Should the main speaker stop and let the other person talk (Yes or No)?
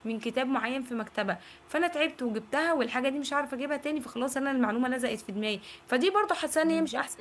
No